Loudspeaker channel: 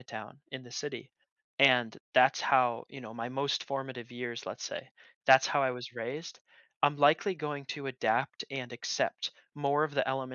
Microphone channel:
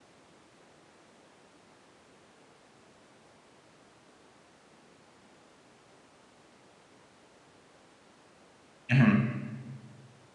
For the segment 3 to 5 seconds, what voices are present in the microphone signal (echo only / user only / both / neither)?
neither